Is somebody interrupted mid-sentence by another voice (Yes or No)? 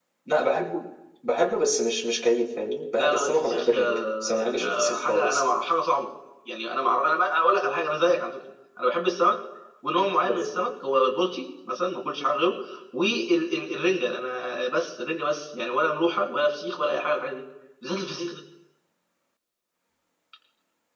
Yes